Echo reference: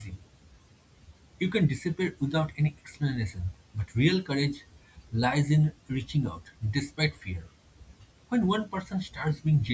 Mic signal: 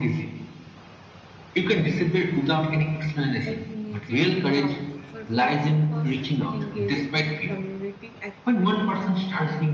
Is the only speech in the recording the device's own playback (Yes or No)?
No